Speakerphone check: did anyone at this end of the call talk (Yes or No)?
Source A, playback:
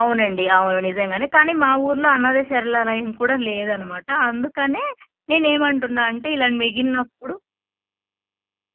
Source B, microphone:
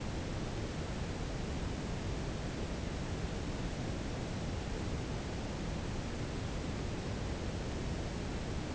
No